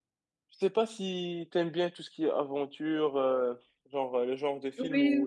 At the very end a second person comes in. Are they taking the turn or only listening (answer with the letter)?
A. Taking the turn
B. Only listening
B